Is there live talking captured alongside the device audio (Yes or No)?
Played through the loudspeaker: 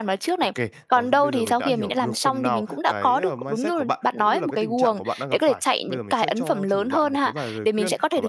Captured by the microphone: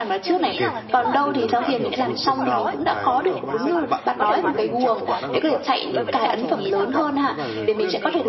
Yes